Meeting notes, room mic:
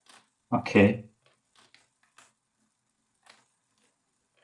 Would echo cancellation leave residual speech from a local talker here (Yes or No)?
Yes